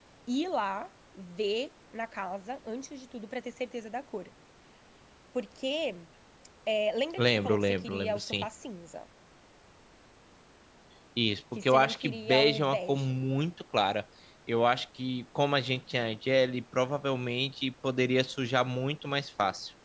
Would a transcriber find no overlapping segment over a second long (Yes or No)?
No